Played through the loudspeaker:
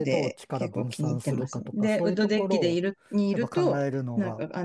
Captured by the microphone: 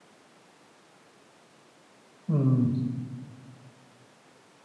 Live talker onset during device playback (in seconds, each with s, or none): 2.3 s